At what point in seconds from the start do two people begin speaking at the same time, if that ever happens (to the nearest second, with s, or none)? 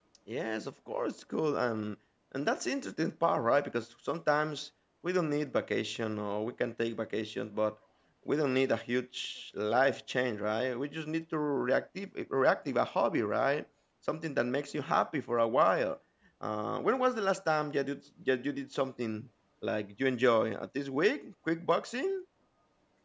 none